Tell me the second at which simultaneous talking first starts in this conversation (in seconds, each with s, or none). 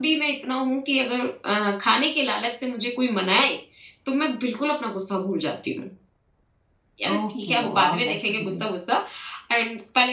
7.1 s